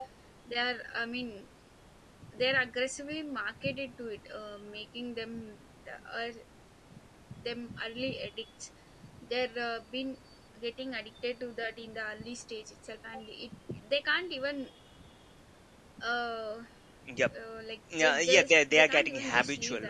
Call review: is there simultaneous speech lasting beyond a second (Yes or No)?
Yes